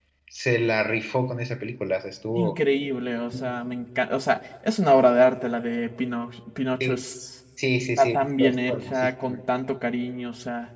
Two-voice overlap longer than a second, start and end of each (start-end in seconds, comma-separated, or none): 8.0-9.4